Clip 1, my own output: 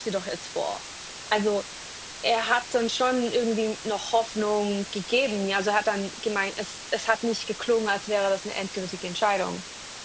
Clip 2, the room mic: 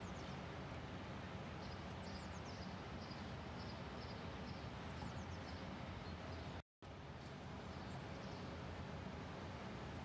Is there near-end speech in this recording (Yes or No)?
No